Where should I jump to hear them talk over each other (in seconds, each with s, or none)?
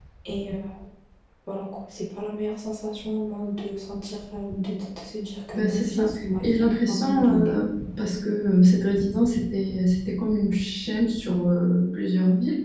5.5 s